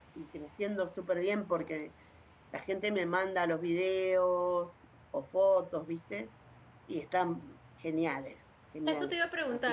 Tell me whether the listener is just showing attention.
No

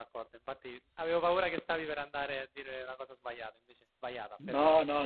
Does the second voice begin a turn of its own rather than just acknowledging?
Yes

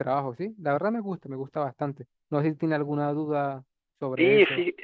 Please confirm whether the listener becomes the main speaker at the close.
Yes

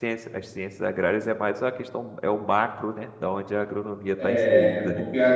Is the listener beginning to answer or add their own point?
Yes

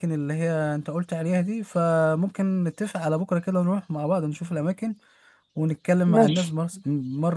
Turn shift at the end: No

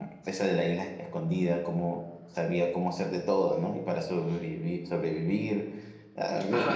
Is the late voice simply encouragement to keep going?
No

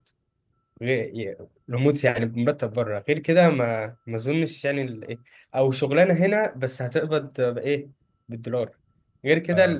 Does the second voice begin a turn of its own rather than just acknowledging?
No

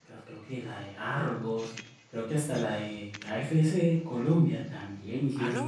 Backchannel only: Yes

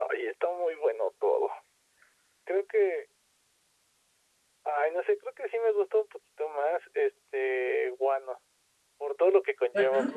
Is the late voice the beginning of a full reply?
No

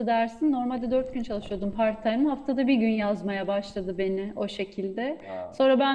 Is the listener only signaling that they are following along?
Yes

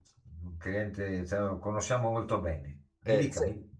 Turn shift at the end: Yes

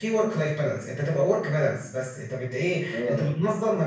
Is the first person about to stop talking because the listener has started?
No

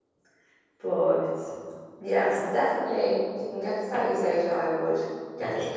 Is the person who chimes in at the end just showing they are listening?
No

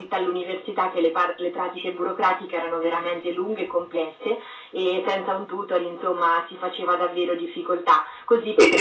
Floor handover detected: Yes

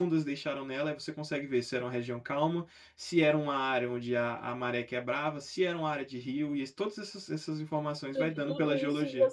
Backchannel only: No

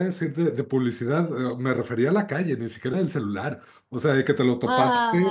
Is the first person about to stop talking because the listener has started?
No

